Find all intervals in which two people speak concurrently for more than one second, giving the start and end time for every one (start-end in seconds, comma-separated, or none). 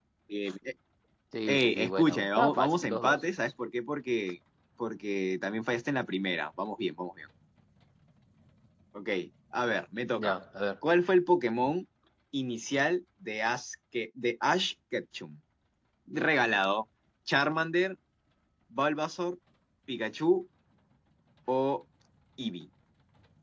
1.5-3.2